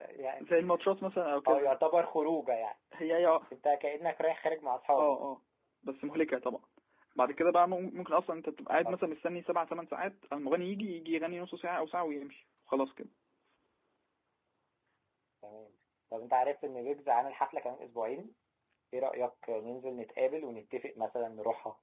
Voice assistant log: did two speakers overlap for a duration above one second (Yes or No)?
No